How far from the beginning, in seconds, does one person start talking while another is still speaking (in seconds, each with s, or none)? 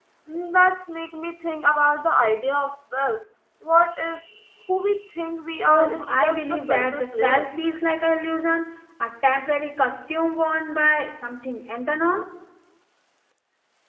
5.7 s